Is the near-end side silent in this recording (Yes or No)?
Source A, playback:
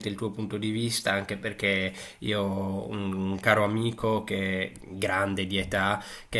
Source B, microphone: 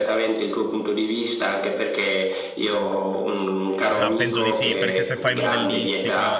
No